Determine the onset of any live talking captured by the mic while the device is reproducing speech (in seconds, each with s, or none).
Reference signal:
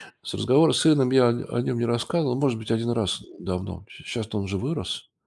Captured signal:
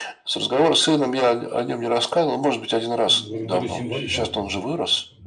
3.1 s